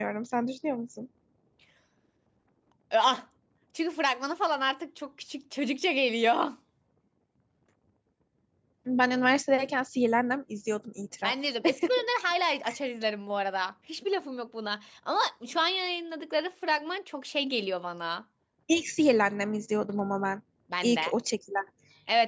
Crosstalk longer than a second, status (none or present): none